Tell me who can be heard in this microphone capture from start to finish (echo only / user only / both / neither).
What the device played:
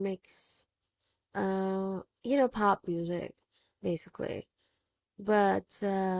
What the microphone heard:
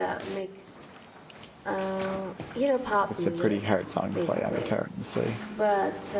both